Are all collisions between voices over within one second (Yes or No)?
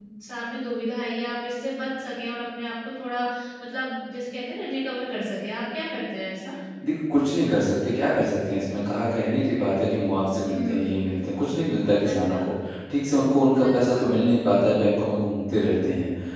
Yes